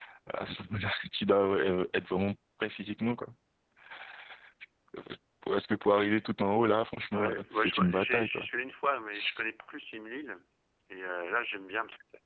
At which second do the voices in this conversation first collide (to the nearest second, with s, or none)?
7 s